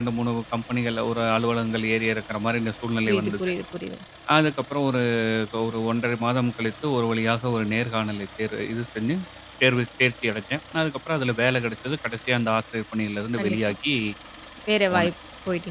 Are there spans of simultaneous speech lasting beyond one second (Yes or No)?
No